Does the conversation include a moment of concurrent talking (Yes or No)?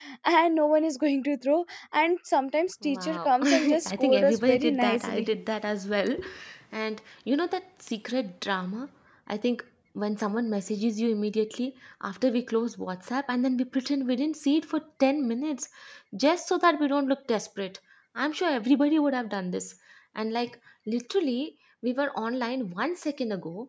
Yes